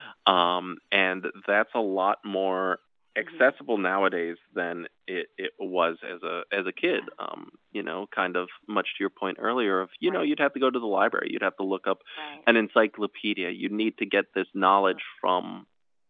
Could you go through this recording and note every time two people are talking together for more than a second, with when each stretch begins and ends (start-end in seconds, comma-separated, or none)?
none